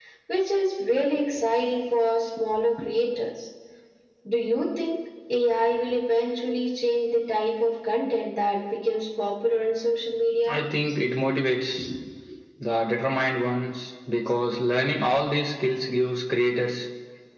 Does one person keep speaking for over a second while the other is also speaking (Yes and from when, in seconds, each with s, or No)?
No